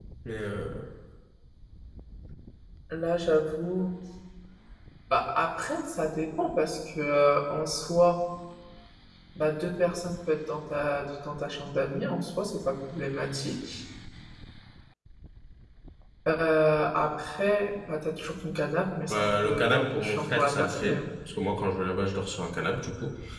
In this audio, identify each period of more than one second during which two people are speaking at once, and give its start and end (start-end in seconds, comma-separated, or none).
19.1-21.1